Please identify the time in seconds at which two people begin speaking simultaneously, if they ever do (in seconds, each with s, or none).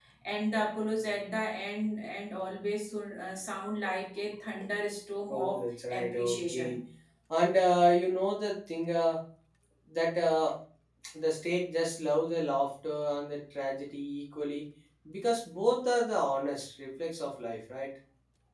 5.3 s